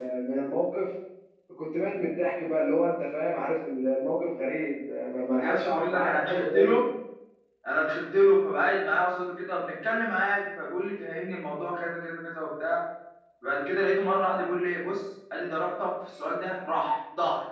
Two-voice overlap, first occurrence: 5.4 s

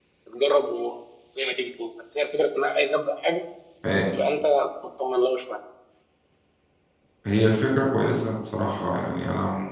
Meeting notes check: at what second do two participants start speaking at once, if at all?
none

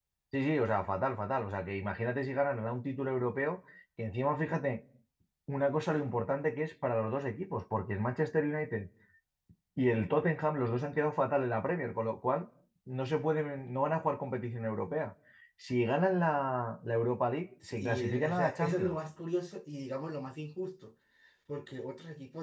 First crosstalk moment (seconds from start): 17.6 s

